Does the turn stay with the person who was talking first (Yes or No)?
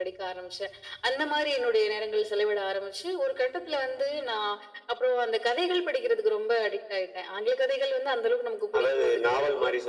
No